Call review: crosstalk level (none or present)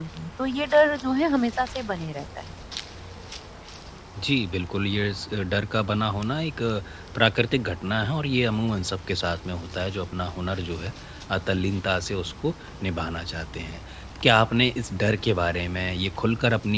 none